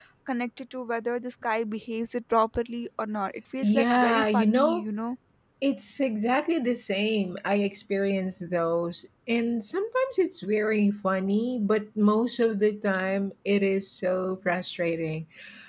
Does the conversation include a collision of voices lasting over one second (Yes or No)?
Yes